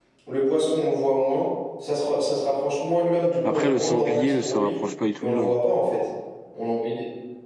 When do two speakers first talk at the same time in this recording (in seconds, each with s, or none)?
3.4 s